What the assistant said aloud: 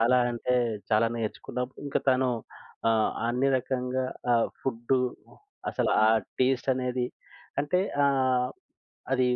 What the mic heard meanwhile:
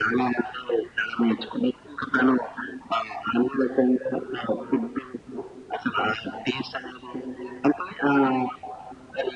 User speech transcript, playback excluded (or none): none